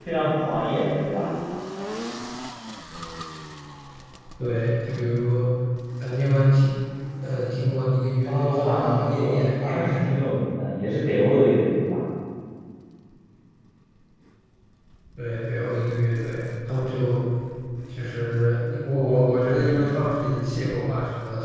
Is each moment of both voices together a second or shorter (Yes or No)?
No